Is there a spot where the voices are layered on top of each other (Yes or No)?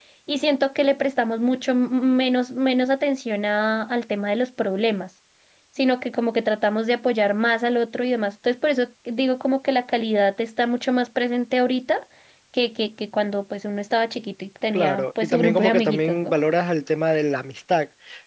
Yes